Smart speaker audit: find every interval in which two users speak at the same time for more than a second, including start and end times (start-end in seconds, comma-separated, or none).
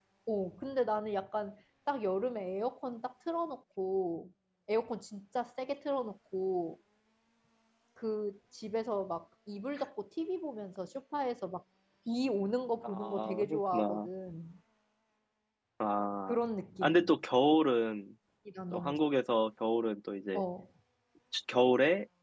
12.8-14.1